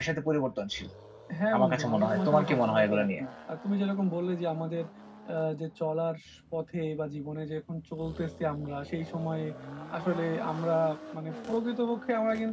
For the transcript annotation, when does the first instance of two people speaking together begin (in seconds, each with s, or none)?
1.5 s